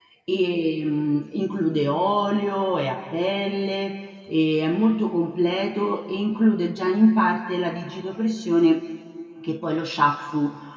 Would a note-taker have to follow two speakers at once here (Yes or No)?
No